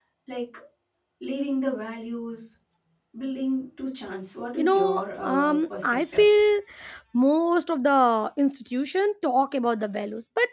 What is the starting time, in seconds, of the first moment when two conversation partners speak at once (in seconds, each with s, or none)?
4.6 s